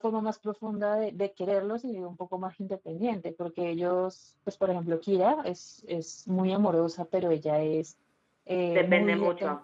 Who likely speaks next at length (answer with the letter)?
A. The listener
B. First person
B